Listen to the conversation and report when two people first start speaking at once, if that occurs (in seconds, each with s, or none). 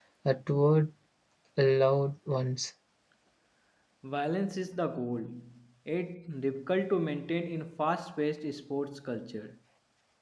none